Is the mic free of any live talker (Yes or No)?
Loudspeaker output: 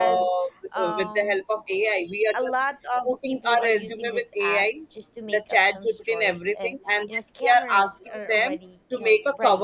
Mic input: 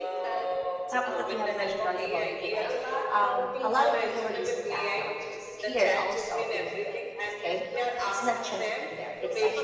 No